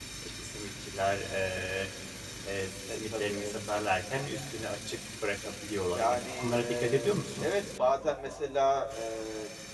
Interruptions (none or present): present